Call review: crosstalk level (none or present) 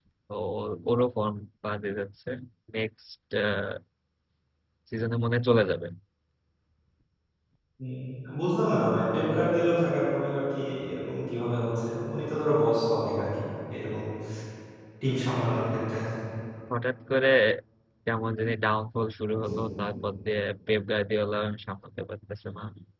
none